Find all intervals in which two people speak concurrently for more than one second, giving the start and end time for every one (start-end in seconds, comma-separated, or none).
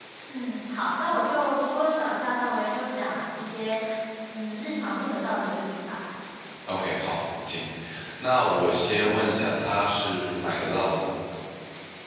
none